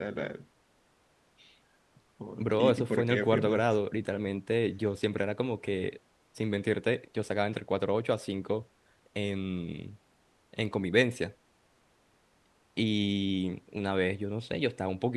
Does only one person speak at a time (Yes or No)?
No